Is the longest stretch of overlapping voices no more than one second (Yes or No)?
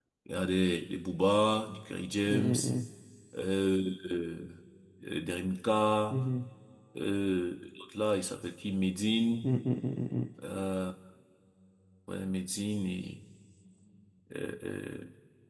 Yes